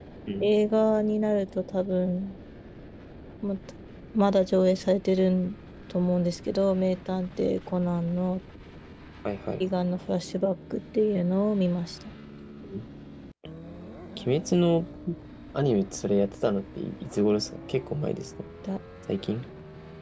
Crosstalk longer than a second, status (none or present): none